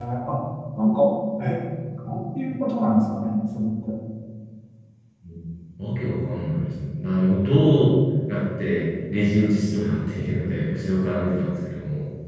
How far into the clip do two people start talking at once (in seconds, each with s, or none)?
none